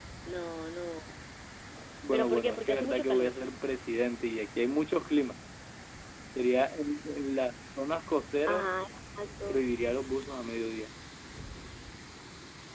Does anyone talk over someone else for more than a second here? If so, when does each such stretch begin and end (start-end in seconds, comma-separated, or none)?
2.1-3.3